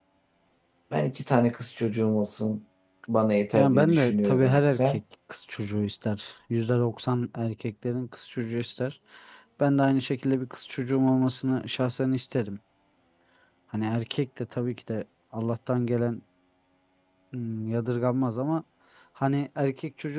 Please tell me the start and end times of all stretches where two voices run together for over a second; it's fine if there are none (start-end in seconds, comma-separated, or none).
3.5-5.0